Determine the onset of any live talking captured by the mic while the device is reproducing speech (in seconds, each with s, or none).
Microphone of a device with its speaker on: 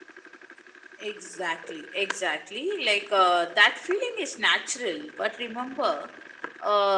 none